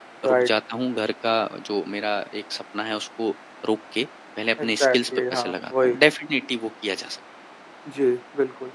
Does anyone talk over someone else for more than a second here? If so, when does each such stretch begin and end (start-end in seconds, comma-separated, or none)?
4.6-6.0